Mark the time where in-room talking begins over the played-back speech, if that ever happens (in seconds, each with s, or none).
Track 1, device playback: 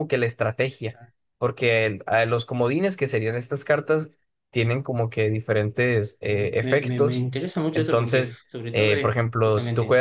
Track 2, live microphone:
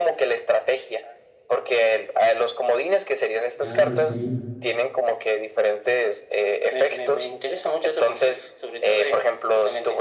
3.6 s